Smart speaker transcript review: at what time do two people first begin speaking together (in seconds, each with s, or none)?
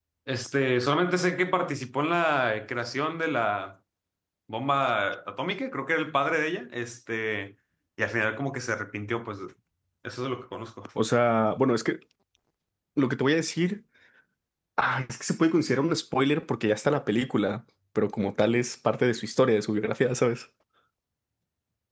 none